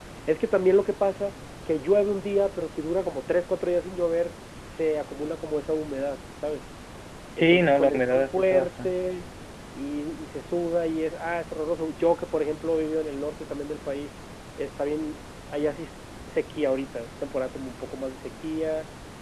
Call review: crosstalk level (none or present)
present